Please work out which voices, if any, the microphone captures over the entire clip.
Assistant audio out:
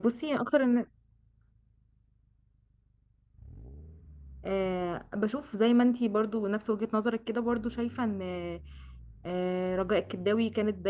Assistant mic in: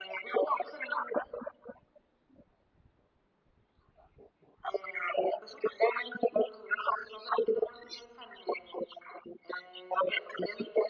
echo only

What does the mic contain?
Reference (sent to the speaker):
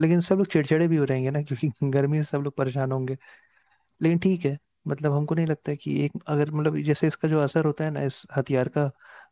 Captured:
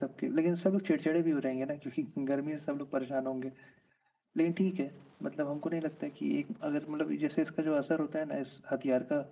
echo only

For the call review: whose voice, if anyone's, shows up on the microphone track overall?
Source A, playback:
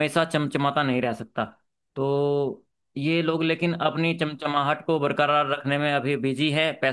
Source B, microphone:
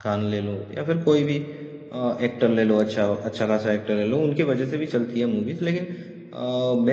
user only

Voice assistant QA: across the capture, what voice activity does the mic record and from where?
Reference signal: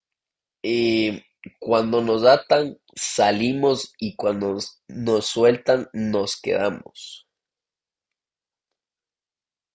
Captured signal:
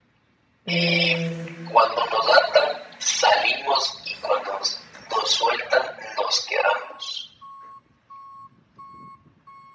both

